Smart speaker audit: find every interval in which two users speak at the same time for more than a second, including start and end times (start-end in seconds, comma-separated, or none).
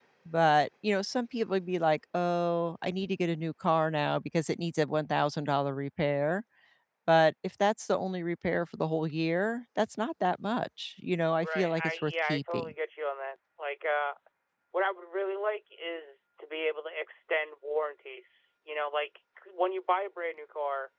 11.4-12.7